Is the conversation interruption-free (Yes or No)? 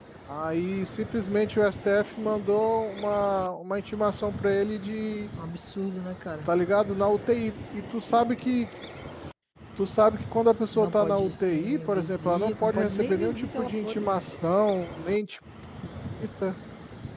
No